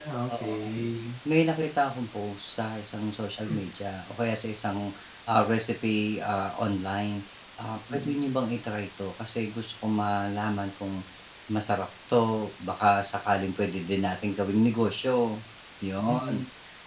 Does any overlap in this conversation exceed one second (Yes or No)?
No